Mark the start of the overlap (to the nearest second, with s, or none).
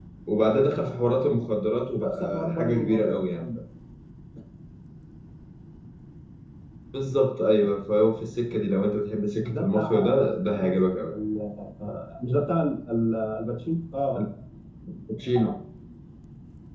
2 s